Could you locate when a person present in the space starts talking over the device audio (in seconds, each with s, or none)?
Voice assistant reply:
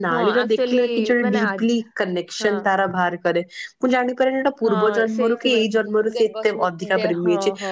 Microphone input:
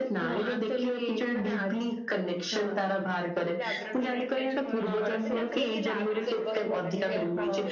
3.6 s